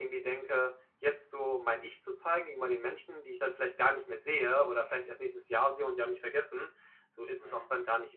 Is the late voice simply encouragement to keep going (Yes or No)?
Yes